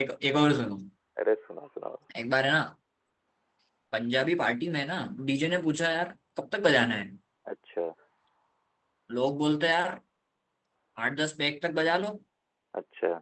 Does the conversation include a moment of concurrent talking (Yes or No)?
No